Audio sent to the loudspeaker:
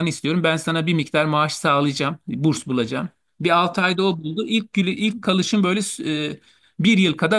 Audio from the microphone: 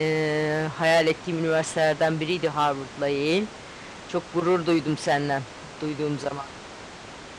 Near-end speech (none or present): present